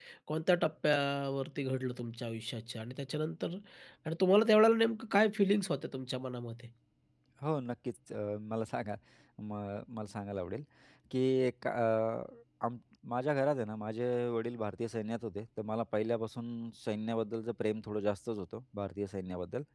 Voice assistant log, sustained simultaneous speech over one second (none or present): none